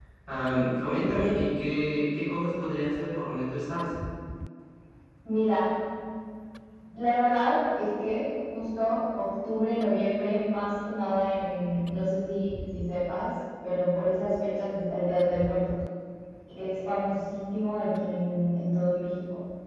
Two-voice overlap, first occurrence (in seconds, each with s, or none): none